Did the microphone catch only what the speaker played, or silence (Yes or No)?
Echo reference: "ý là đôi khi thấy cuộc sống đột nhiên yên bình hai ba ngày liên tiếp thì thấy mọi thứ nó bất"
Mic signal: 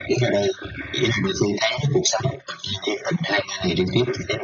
Yes